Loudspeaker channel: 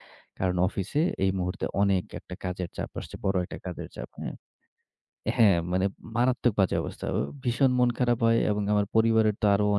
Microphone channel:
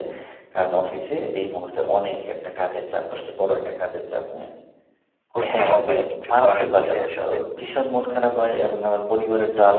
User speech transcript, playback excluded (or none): করতে হবেই। কিছু করার নেই আসলে।